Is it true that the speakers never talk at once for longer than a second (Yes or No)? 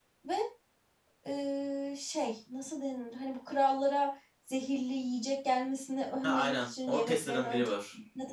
No